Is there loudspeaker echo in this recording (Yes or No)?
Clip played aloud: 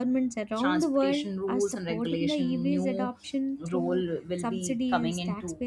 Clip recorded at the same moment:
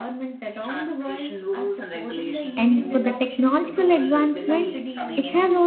Yes